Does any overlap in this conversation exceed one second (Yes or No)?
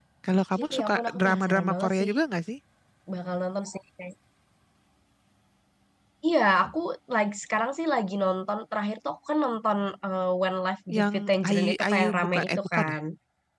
Yes